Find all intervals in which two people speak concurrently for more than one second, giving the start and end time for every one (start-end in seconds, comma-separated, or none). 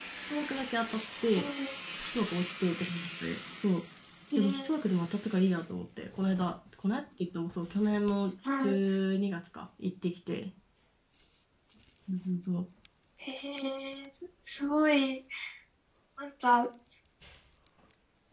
none